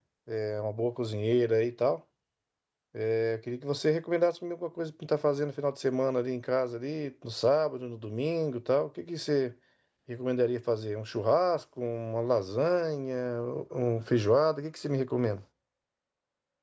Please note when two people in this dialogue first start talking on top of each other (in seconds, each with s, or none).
none